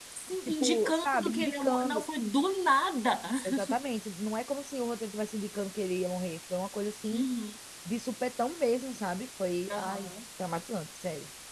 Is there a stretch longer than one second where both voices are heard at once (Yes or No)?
Yes